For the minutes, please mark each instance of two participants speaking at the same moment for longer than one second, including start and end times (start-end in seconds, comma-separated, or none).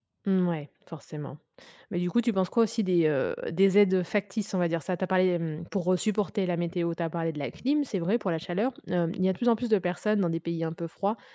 none